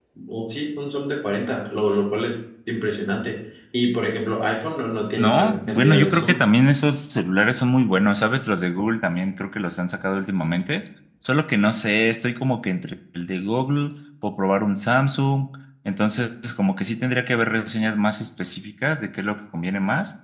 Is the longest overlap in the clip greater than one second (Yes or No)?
Yes